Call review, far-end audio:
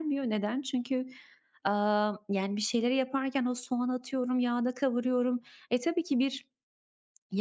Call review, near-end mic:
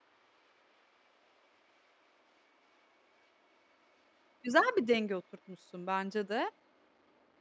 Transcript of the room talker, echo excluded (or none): güzel bir denge oturtmuşsun bence de,